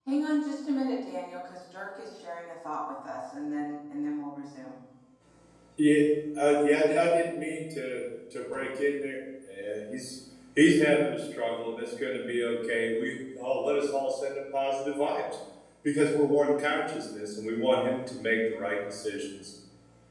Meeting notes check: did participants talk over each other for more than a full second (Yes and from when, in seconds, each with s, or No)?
No